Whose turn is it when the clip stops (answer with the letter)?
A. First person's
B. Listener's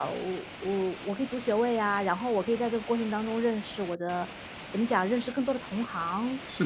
A